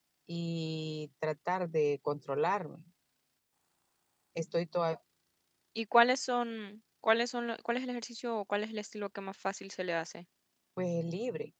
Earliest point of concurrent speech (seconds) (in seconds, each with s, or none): none